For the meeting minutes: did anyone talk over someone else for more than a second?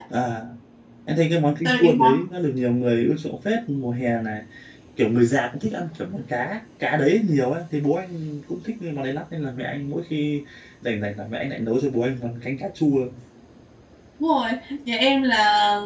No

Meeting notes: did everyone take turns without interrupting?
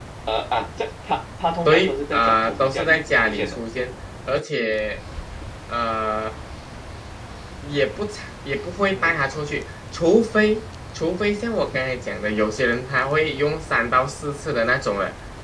No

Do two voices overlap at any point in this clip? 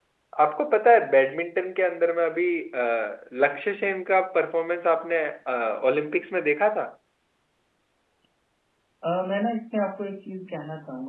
No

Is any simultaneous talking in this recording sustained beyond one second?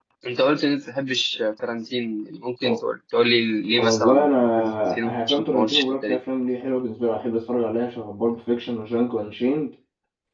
Yes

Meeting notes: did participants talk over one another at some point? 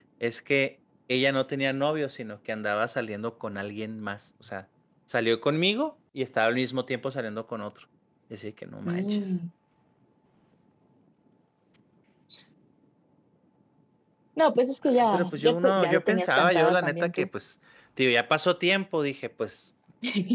Yes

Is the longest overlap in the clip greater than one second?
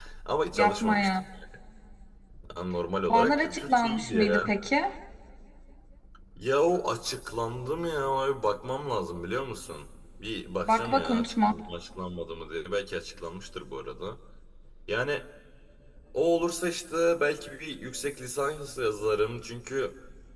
Yes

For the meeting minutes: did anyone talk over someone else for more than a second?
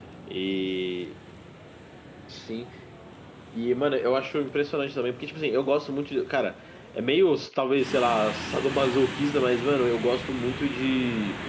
No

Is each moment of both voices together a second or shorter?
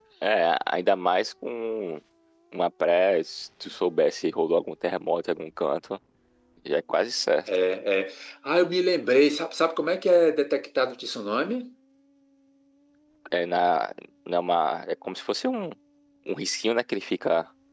Yes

